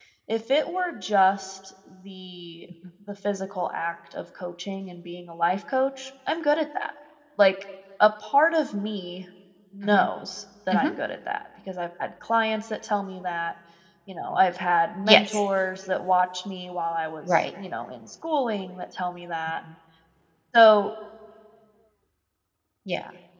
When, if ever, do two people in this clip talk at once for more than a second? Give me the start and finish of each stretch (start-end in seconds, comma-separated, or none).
none